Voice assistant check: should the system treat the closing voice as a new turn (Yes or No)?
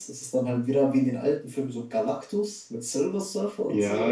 Yes